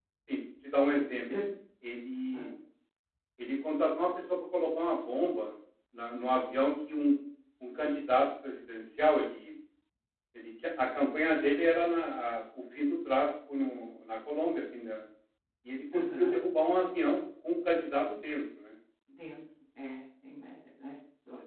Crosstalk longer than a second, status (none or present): none